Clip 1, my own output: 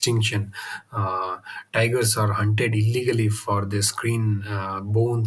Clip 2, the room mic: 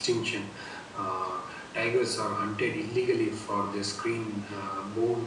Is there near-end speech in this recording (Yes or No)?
No